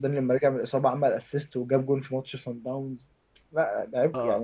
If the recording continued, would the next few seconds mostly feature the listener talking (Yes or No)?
Yes